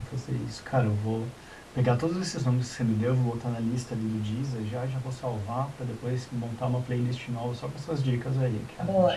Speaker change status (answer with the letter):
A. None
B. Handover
B